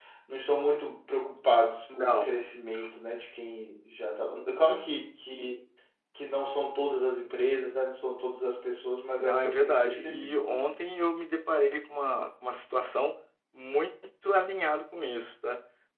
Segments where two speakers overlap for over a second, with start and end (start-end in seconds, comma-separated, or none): 9.2-10.6